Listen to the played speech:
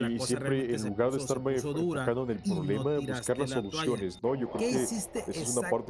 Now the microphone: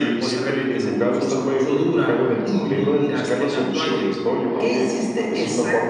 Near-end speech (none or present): none